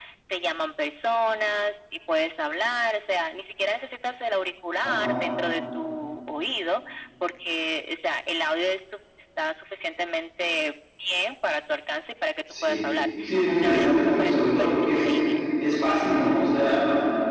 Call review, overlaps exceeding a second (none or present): present